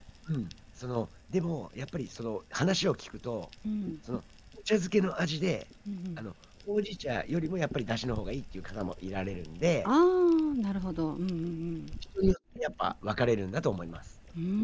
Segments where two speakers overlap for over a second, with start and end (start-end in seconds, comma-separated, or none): none